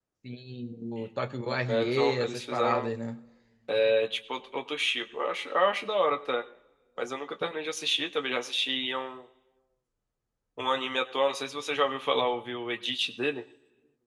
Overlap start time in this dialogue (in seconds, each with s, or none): 1.7 s